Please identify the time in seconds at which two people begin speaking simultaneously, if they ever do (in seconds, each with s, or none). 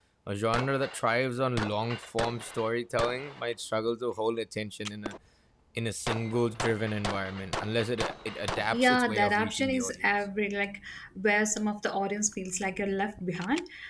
8.6 s